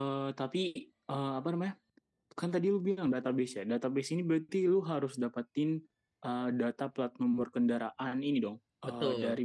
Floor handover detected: No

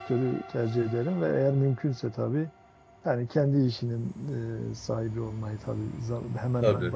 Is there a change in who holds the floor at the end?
No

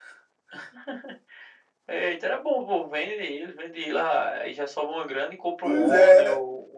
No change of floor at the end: No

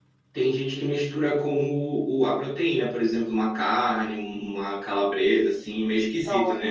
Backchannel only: No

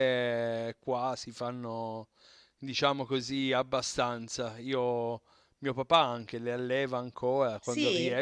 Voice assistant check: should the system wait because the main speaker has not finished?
Yes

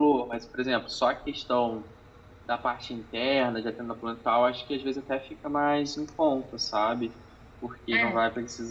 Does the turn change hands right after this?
No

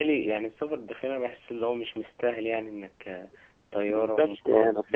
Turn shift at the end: Yes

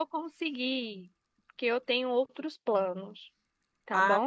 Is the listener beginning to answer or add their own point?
Yes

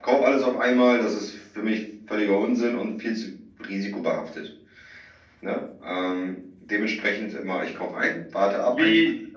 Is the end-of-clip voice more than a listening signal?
Yes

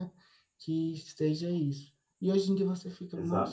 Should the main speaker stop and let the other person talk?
No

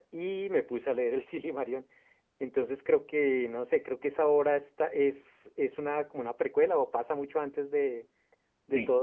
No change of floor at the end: Yes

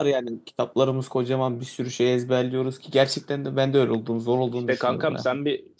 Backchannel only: No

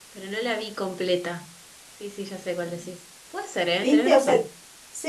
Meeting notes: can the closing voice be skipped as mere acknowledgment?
No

